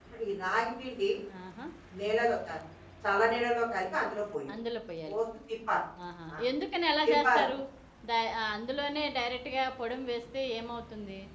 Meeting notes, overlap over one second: none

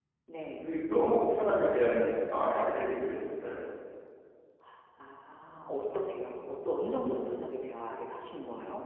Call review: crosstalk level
none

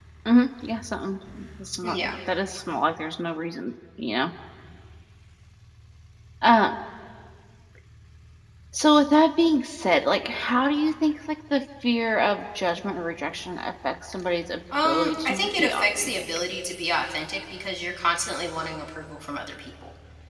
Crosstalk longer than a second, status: present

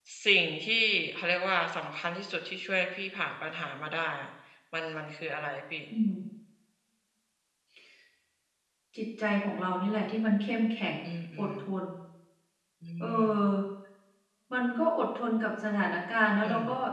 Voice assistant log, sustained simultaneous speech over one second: none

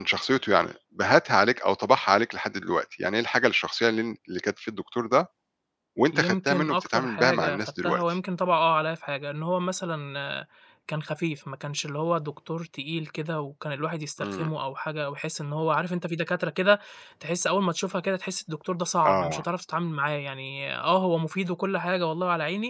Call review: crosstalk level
present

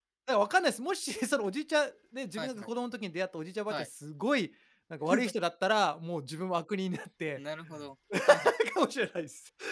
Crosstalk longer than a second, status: none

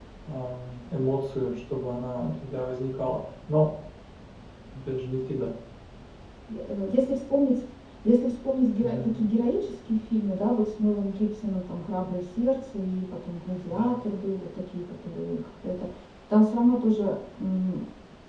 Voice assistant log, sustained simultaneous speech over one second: none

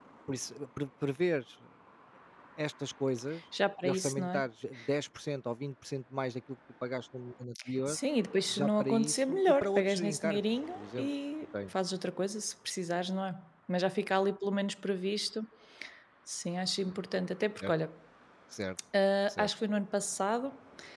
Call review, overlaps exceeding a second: present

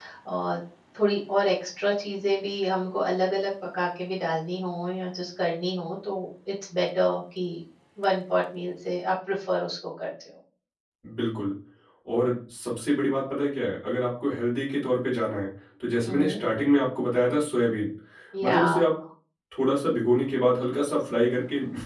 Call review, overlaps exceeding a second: none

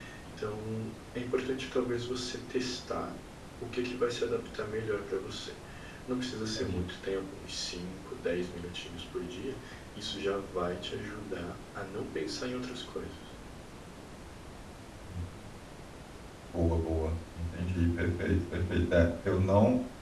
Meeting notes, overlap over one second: none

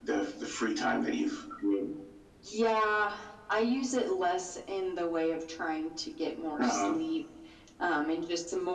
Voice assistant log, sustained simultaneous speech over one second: none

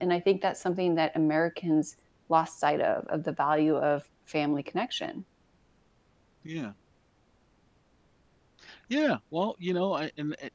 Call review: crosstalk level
none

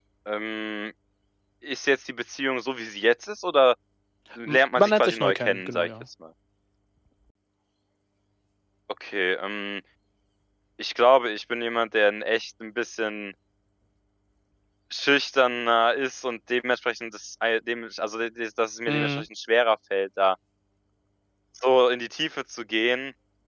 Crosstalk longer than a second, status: present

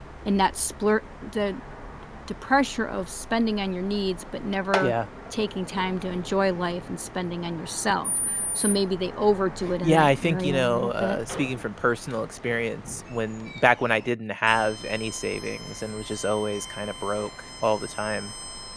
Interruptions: present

